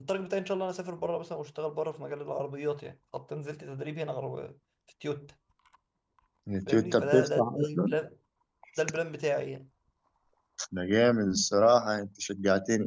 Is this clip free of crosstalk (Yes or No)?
No